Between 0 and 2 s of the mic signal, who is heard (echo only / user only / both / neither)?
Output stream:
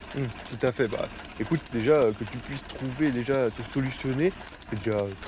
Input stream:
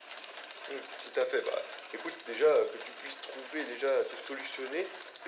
echo only